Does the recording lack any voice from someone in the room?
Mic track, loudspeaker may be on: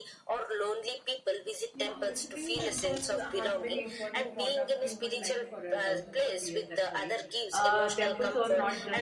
No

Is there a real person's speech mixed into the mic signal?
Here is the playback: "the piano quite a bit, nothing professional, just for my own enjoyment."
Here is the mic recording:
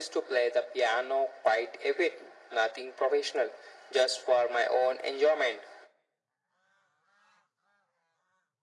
No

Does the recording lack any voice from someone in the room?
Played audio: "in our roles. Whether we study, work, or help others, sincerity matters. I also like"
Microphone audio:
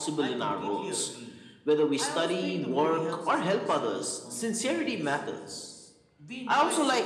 No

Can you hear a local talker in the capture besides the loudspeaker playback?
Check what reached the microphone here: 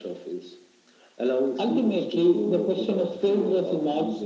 No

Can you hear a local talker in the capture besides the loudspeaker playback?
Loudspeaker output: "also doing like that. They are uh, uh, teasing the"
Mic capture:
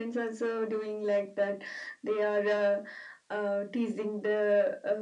No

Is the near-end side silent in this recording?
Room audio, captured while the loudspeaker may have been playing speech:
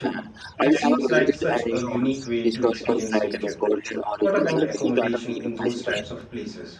No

